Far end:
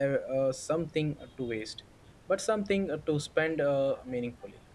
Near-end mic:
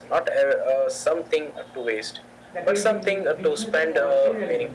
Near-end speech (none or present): present